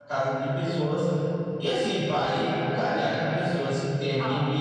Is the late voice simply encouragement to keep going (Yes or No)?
Yes